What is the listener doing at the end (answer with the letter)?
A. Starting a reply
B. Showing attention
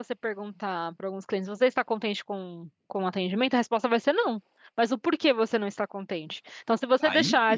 B